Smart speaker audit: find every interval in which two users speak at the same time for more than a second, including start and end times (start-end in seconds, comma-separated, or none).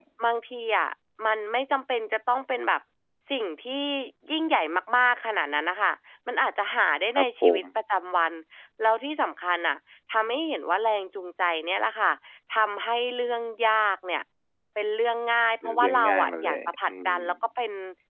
15.6-17.2